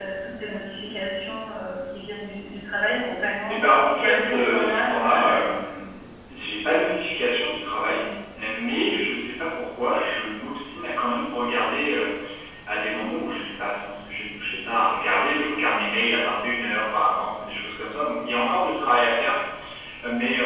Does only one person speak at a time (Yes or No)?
No